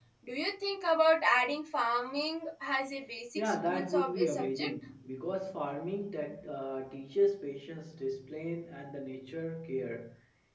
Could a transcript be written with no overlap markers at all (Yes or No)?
No